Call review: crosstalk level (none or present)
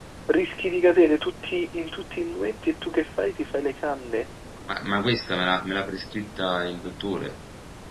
none